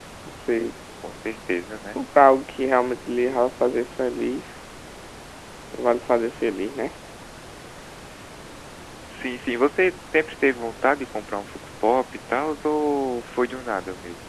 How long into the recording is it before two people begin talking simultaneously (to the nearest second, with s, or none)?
none